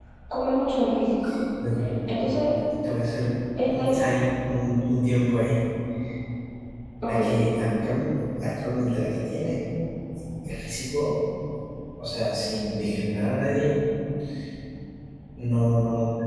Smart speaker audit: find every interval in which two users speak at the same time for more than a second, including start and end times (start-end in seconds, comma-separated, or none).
none